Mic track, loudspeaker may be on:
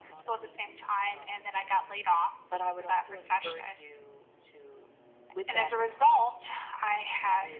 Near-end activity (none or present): none